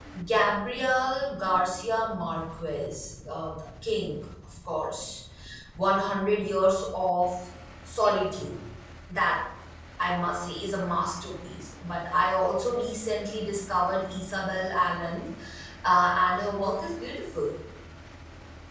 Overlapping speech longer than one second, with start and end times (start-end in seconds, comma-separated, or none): none